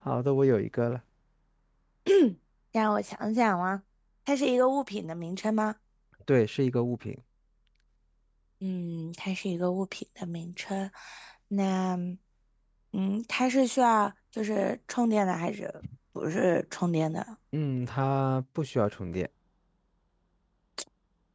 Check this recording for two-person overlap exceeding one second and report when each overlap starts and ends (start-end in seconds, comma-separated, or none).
none